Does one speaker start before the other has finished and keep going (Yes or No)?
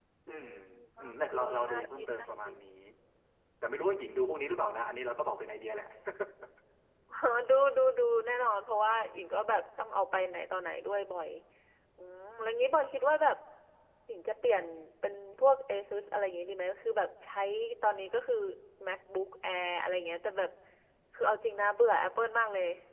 Yes